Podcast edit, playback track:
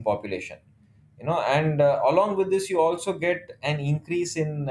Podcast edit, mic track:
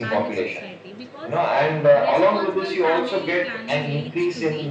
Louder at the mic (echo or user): echo